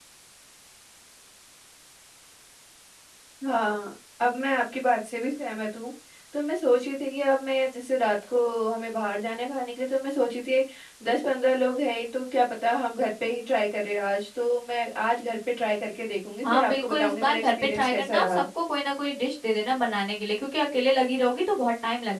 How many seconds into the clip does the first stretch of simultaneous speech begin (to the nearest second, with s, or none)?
16 s